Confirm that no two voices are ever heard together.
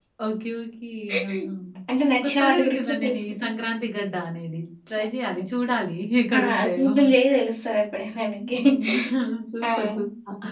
No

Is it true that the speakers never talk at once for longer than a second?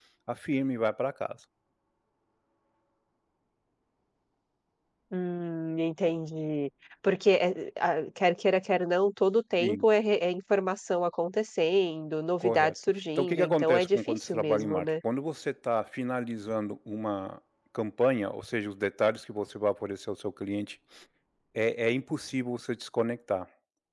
No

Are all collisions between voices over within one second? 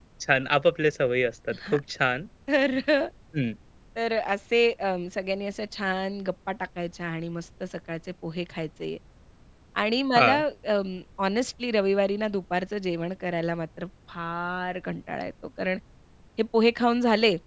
Yes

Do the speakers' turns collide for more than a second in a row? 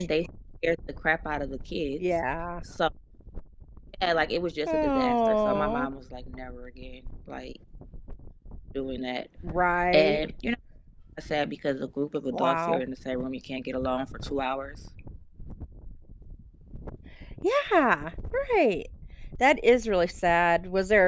Yes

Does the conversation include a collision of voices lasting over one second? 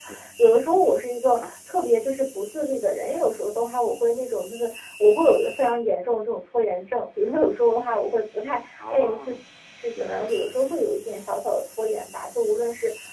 No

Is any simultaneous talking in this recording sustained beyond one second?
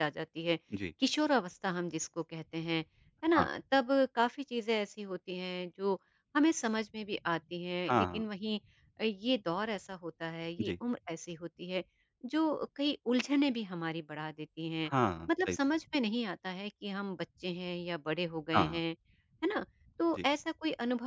No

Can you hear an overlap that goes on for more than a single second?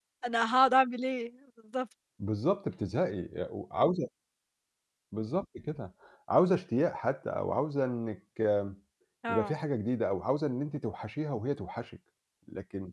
No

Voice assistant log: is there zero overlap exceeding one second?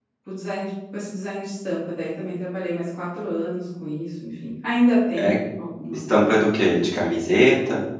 Yes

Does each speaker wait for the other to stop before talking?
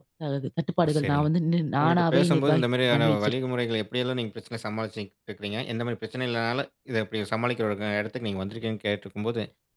No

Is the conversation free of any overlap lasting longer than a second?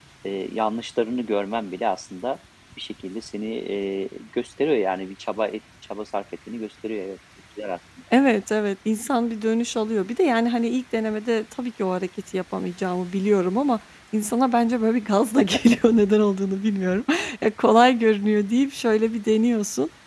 Yes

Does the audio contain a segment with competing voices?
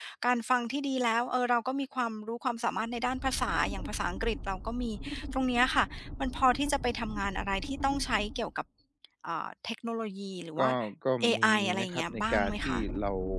Yes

